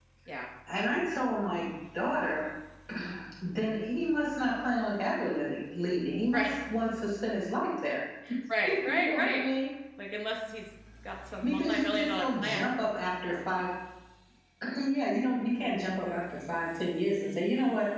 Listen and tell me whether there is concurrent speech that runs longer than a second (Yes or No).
Yes